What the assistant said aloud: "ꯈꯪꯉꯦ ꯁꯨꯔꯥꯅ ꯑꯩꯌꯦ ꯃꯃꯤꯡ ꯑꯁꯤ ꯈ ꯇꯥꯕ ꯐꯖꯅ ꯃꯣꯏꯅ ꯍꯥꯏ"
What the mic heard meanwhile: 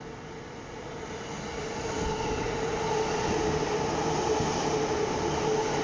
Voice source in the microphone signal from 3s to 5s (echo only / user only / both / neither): neither